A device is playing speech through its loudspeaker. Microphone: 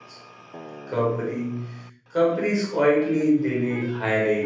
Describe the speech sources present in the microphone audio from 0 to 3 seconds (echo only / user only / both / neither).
user only